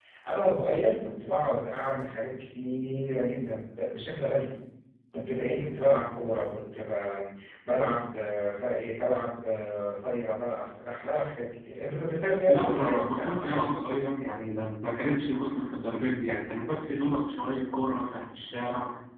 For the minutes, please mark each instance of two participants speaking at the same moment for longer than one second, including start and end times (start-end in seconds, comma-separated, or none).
12.5-13.9